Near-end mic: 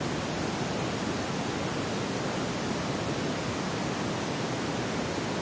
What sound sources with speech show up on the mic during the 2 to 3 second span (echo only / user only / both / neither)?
neither